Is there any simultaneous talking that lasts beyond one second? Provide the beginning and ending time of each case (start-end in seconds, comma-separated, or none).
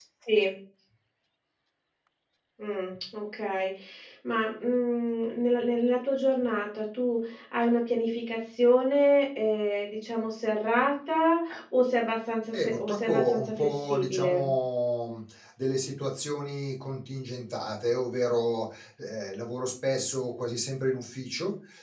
12.5-14.5